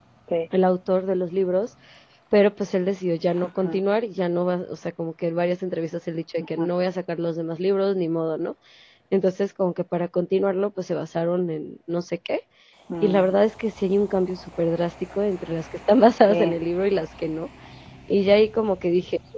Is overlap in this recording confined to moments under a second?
Yes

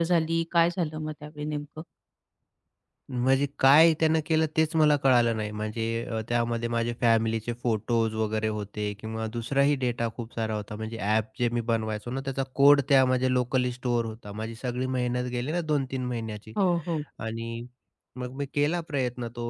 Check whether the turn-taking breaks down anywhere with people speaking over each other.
No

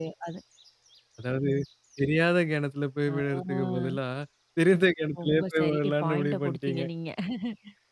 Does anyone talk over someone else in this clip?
Yes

